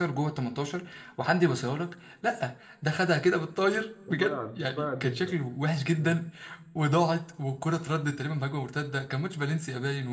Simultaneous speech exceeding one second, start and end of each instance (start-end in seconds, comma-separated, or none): 4.1-5.4